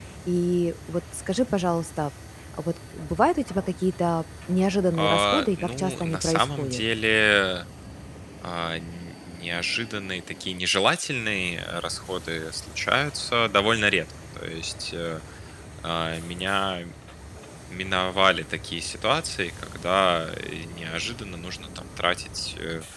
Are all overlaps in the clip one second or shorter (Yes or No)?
No